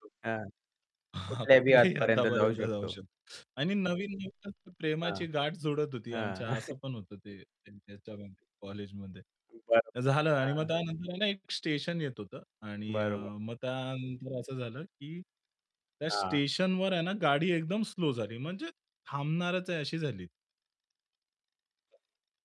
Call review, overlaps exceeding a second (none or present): present